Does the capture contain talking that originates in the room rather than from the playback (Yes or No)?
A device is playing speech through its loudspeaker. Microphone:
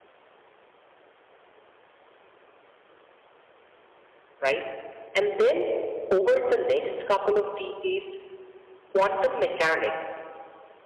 Yes